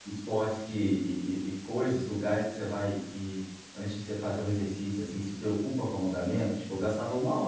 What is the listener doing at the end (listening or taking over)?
taking over